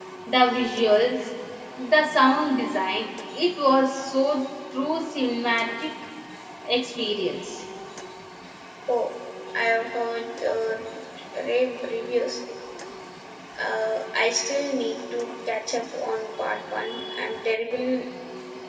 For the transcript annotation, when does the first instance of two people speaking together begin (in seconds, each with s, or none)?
none